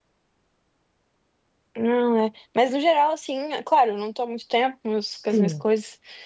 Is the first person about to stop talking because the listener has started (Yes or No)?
No